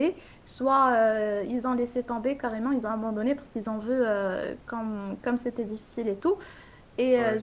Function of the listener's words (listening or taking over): listening